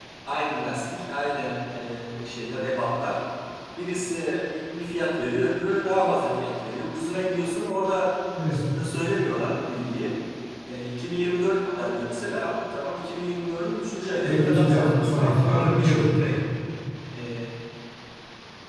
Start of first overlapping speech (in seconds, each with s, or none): 14.2 s